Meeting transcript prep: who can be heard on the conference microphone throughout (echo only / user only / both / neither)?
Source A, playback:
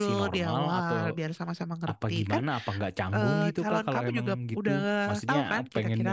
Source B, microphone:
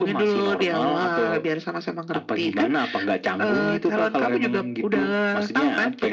echo only